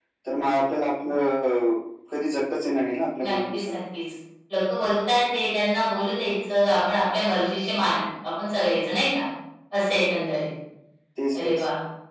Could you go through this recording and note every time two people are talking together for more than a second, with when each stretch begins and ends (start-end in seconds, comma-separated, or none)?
none